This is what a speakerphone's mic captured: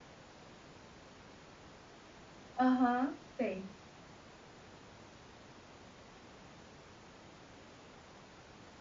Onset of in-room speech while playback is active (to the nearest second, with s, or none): 3 s